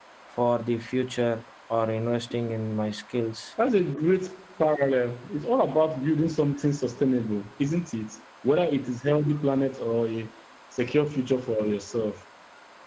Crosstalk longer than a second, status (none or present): none